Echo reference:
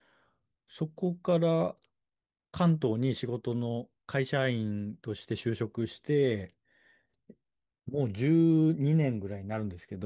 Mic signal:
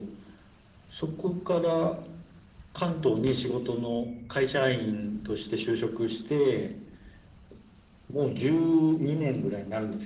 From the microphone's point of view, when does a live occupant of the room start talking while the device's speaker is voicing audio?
none

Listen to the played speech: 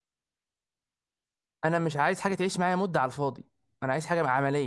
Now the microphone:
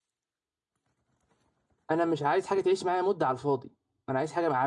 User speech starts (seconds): none

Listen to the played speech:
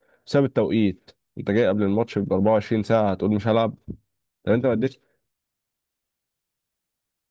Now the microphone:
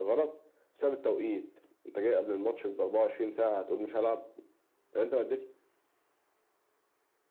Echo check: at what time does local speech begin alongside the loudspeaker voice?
none

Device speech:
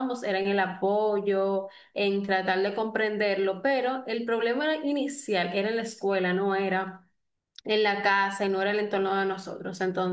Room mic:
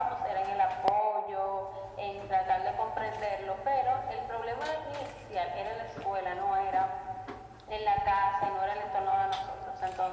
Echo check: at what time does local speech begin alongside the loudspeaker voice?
none

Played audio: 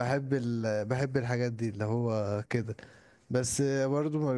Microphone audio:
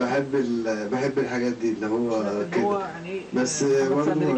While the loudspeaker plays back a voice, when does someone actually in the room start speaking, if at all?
2.1 s

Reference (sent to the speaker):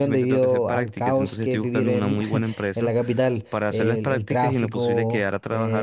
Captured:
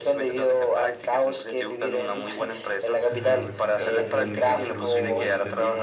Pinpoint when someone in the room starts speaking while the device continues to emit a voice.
3.1 s

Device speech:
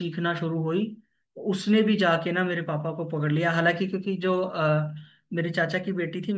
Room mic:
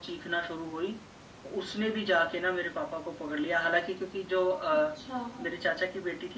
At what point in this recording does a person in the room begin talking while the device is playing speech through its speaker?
4.7 s

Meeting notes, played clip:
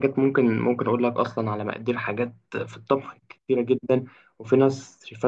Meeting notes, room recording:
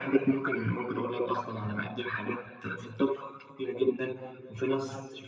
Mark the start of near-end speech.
none

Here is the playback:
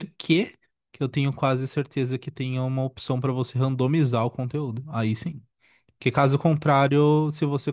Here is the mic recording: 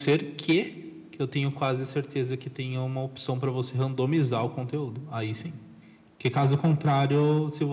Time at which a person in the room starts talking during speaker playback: none

